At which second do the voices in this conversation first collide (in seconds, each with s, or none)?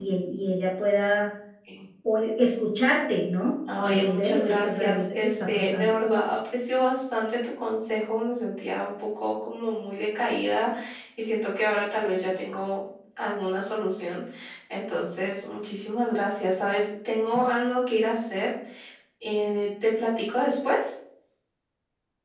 3.7 s